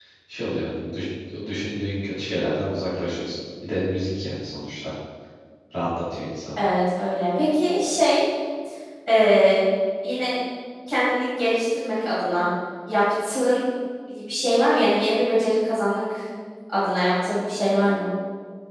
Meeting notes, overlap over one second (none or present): none